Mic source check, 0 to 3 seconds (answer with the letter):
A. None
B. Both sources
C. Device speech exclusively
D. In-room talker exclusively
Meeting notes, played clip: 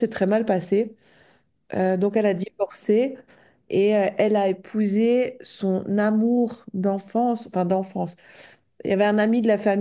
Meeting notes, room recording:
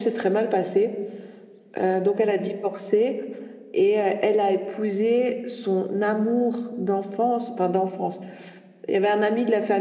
C